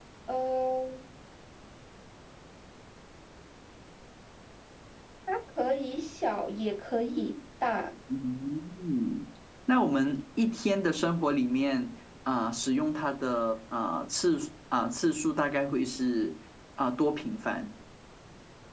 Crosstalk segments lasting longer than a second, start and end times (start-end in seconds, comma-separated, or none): none